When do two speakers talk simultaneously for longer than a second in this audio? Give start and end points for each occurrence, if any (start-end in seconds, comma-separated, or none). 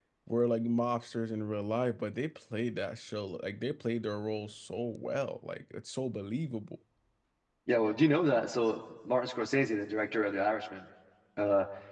none